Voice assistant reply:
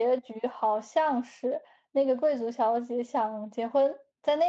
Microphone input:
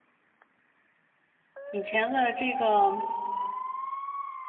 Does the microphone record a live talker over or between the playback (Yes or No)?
Yes